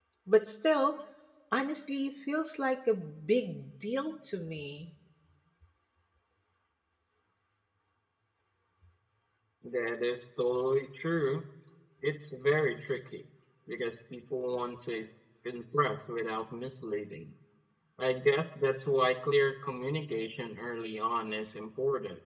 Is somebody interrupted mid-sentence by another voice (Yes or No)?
No